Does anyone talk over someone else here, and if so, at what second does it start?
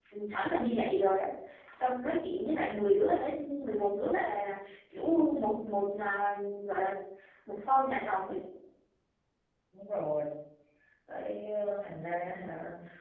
none

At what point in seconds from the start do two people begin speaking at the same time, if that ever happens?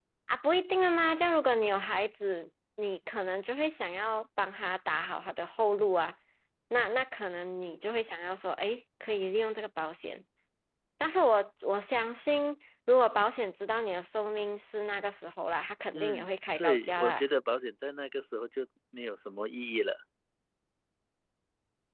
15.9 s

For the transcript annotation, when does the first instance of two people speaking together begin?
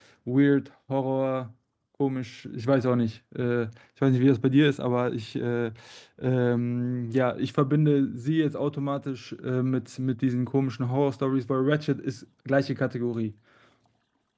none

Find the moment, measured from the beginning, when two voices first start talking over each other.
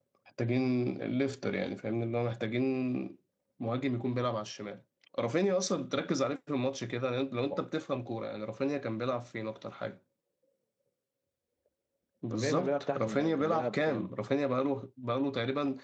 12.3 s

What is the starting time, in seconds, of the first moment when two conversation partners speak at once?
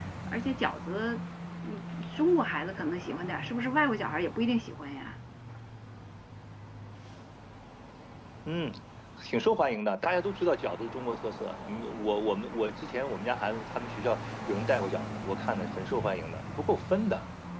none

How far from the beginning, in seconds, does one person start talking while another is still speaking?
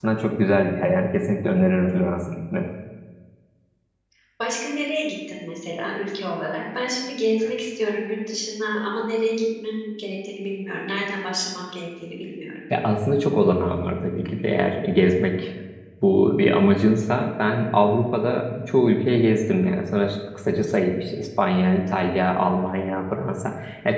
none

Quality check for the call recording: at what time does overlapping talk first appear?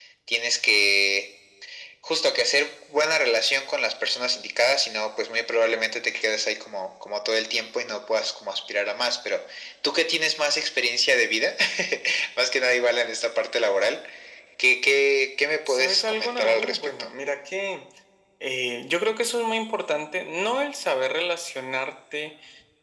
15.7 s

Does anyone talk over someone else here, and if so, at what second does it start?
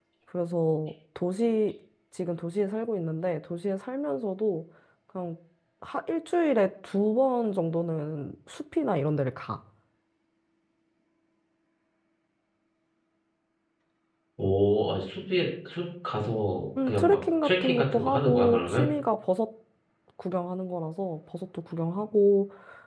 16.8 s

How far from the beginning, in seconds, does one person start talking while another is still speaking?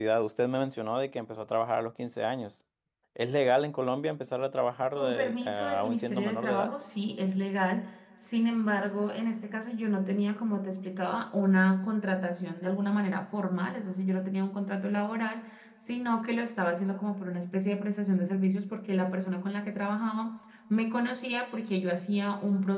5.0 s

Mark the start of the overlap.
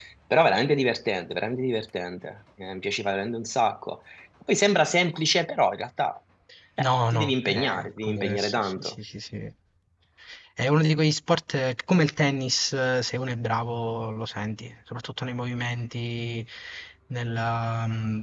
6.8 s

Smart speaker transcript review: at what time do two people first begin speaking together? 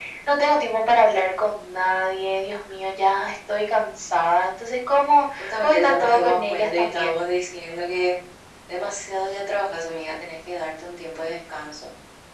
5.4 s

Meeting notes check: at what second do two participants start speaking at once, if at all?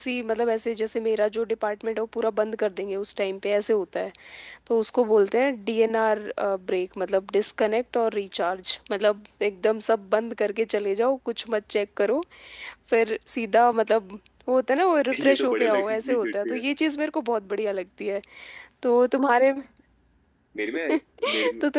15.2 s

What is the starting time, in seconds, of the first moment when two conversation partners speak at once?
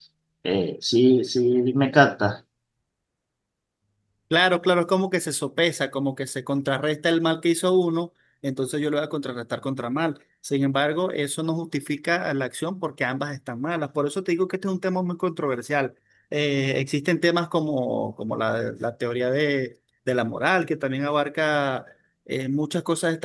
none

